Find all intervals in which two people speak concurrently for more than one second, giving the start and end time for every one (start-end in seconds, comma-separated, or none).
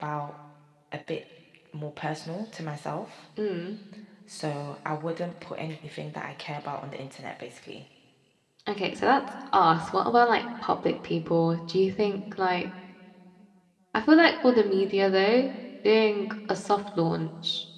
none